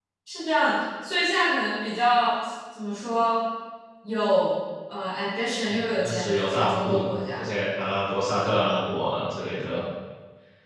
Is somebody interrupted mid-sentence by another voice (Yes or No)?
Yes